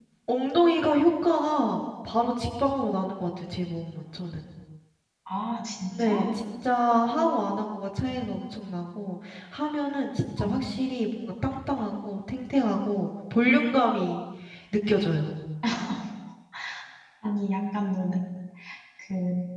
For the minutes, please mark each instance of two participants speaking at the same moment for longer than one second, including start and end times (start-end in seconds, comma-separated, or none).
none